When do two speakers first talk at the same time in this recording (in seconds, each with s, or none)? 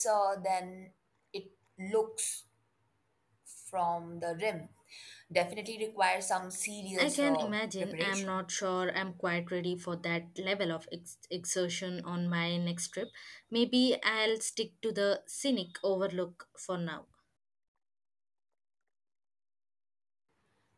7.0 s